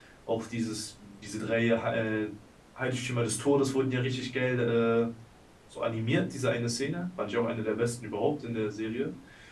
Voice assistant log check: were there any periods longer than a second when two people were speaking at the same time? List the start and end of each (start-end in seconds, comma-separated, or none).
none